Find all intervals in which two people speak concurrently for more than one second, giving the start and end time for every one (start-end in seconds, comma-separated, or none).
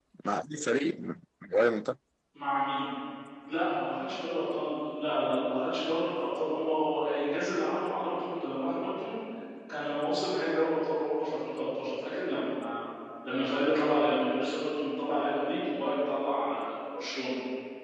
none